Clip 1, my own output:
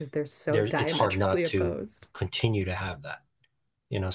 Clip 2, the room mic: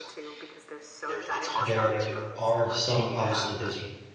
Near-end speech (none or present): present